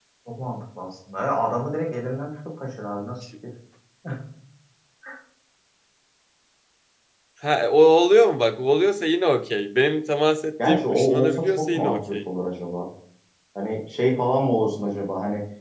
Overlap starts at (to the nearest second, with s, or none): 11 s